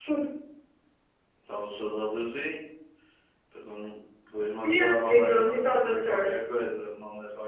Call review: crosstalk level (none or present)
present